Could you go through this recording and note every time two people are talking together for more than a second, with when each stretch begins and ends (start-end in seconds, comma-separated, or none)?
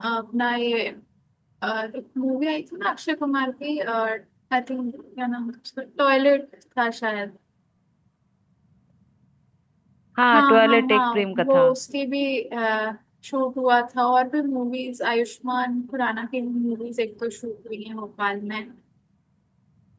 10.3-11.7